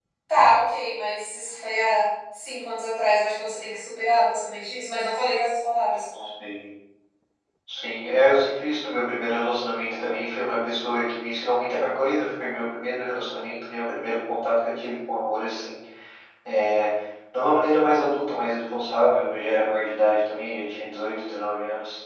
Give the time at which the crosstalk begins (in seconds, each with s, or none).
none